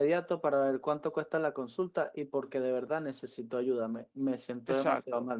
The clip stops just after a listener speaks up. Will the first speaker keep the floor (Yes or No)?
No